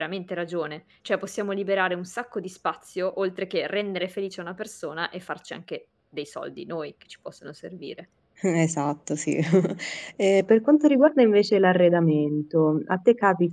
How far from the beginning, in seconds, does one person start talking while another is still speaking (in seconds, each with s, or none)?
none